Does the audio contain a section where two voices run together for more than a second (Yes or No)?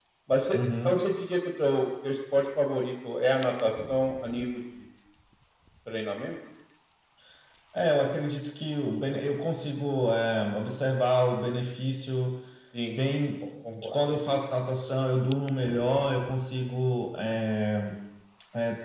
No